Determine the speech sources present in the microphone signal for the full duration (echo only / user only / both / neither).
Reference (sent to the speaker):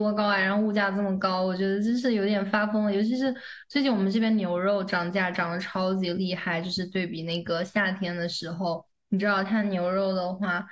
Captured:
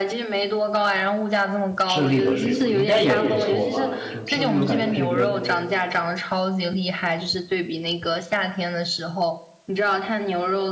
both